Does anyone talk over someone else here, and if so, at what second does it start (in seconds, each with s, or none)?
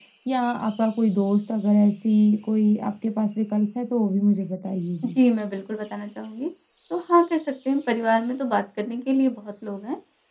none